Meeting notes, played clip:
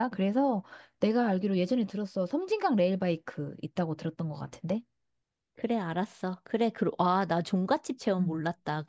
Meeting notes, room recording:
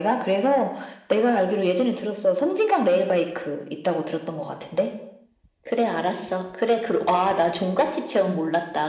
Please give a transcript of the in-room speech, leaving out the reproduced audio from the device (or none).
none